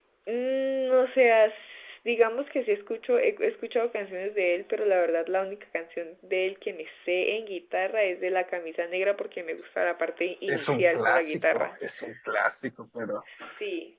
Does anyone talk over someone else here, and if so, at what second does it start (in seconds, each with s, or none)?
10.5 s